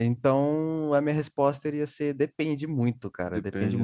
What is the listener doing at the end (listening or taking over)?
listening